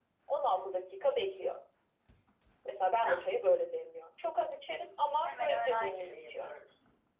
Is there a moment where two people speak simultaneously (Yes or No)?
Yes